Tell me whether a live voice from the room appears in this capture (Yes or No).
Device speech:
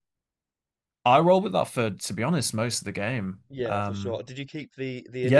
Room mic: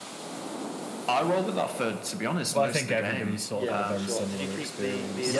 Yes